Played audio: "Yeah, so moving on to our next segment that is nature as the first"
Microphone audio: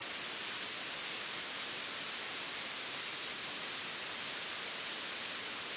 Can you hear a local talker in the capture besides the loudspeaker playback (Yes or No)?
No